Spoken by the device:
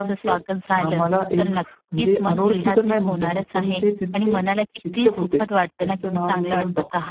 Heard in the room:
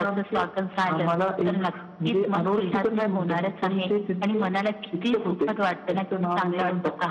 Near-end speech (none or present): none